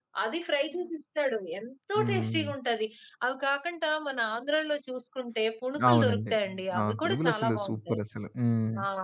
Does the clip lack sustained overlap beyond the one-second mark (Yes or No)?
No